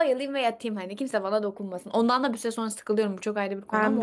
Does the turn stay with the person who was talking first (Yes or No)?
No